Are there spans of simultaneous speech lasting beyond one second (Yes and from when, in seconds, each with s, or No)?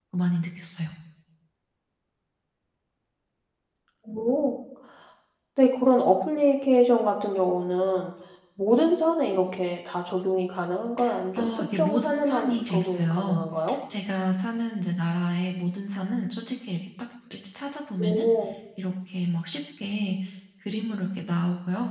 Yes, from 11.4 s